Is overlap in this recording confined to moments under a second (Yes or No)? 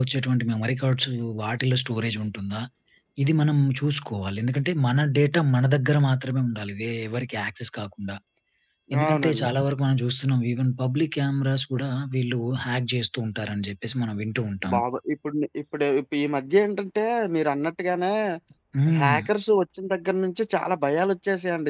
Yes